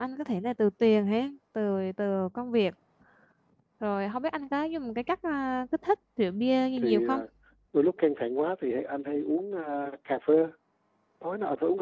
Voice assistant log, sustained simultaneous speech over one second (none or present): none